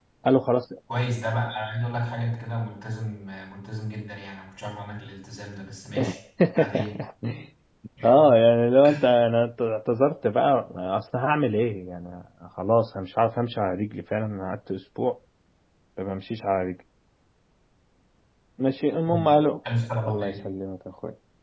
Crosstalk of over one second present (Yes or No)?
No